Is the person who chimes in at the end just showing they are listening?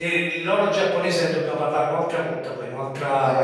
No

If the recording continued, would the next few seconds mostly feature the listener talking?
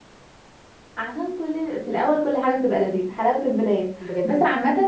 No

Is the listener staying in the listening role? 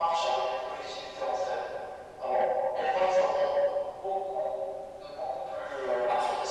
Yes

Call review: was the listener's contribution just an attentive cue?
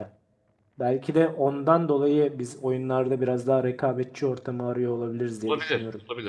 No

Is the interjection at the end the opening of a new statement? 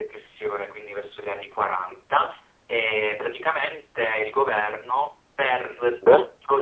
No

